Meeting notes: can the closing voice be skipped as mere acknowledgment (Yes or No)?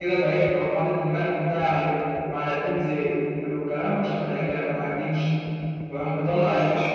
Yes